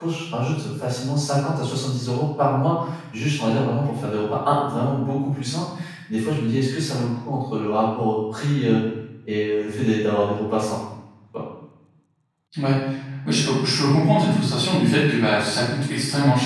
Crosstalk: none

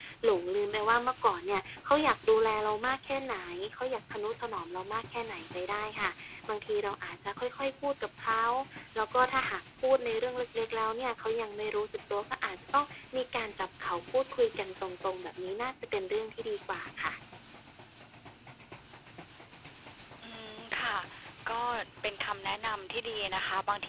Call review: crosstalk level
none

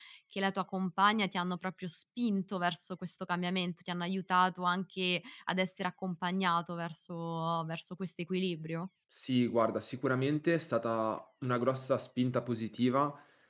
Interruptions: none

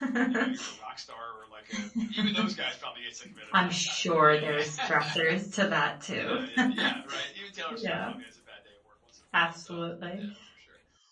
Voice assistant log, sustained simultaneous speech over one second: present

